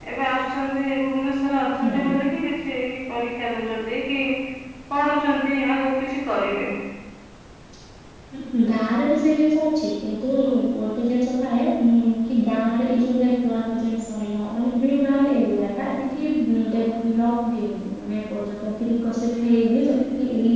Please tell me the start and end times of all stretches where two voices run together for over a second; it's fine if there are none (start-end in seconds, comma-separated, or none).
none